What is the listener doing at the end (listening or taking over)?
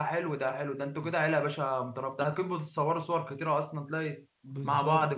taking over